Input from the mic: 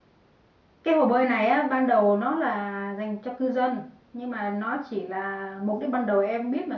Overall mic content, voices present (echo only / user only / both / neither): user only